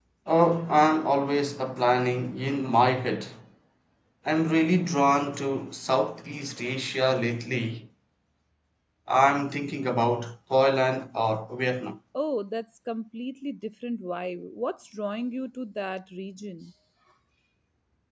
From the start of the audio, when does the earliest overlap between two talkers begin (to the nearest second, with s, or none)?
none